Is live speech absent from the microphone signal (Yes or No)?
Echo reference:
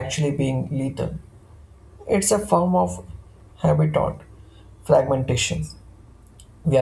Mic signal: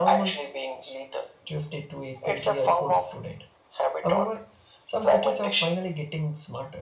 No